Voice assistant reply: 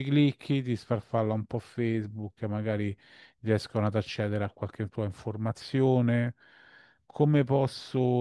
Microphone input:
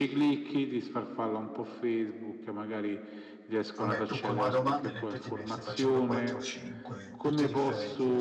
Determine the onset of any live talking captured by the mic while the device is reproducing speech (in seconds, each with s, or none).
3.7 s